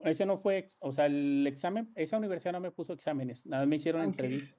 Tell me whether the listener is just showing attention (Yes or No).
Yes